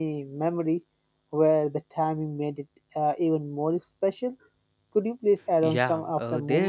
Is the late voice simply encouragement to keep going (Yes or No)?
No